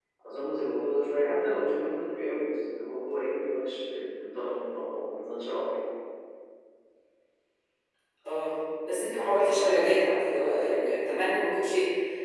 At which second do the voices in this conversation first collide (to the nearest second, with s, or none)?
none